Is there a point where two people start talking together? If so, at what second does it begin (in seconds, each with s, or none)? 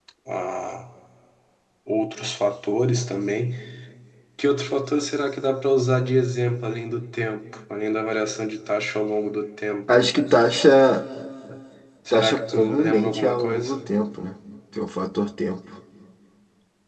12.1 s